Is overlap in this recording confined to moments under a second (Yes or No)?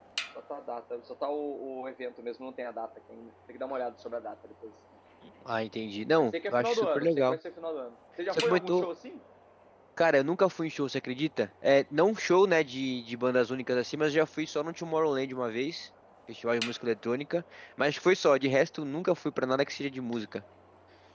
No